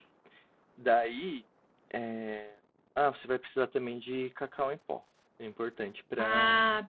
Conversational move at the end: listening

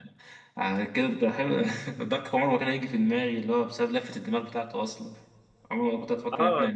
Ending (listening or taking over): taking over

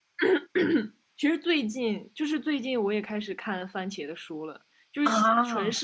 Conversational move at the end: listening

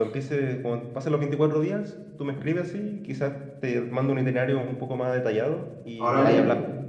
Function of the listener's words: taking over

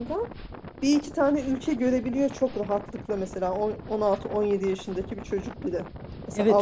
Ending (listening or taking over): taking over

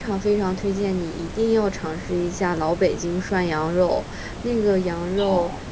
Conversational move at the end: listening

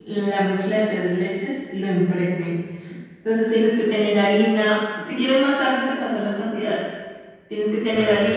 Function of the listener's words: listening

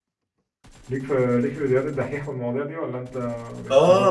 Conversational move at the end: taking over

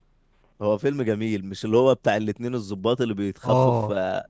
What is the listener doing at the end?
listening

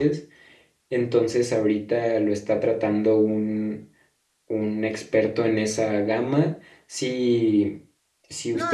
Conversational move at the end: taking over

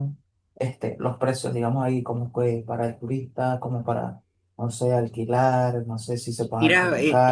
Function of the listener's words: taking over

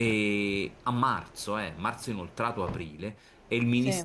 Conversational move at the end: listening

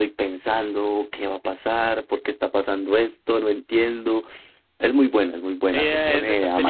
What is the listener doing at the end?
taking over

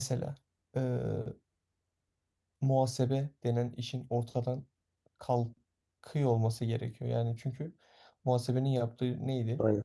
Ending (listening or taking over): listening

